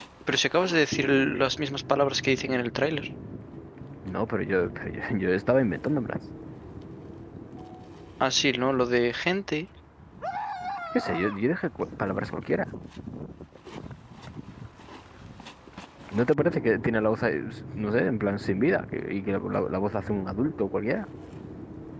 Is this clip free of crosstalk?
Yes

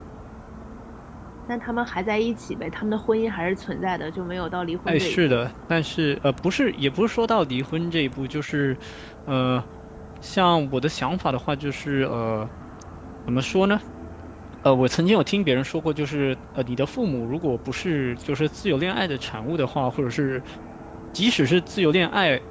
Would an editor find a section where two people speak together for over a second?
No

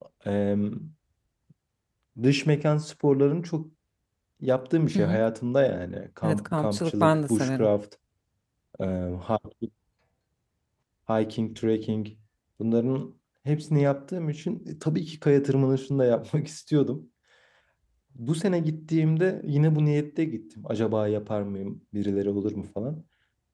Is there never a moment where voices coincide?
No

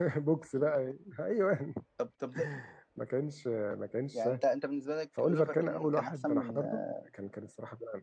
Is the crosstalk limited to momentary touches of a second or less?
No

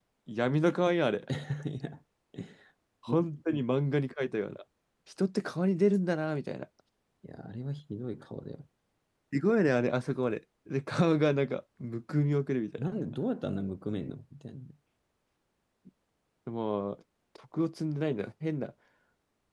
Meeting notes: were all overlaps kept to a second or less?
Yes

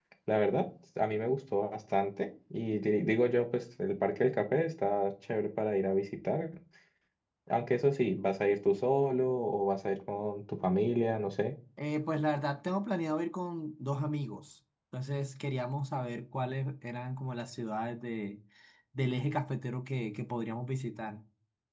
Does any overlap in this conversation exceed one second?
No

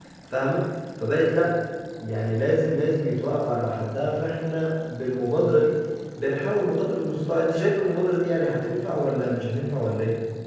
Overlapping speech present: No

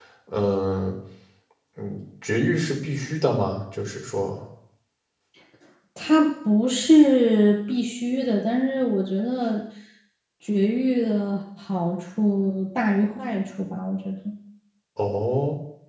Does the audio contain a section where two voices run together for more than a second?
No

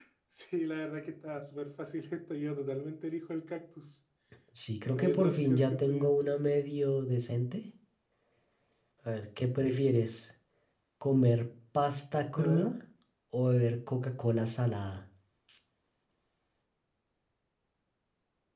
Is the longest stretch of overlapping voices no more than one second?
No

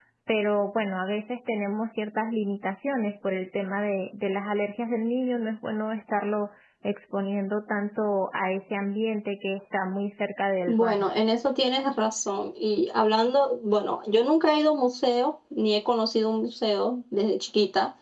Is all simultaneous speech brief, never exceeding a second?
Yes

